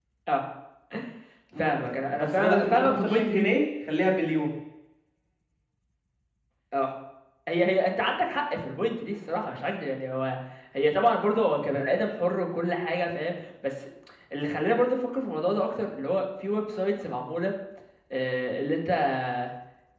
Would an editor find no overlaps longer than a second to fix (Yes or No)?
No